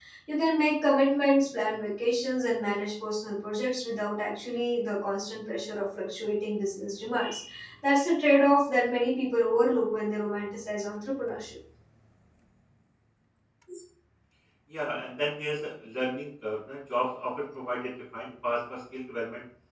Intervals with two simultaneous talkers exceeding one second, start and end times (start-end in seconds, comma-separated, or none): none